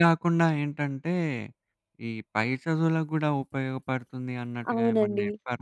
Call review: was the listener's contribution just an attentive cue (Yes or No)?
No